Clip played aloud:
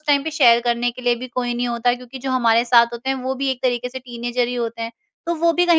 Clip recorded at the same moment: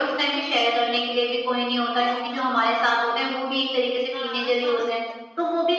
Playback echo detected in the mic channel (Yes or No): Yes